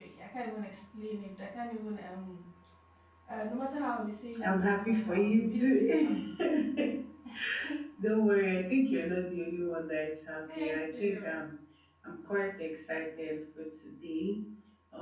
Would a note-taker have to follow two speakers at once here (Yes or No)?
Yes